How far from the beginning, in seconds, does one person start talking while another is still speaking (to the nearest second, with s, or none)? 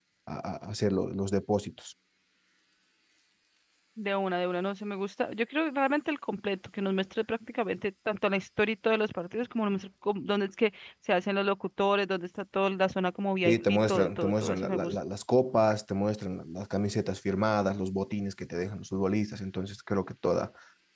13 s